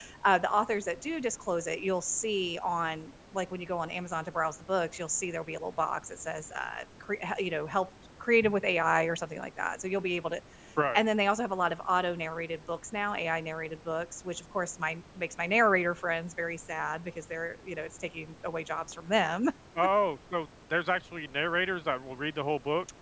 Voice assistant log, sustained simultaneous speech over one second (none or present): none